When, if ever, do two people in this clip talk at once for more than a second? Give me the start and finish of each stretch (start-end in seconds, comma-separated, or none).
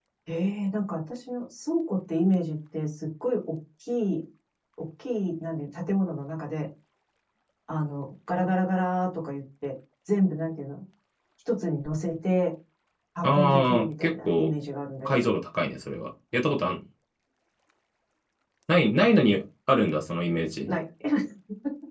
13.2-14.5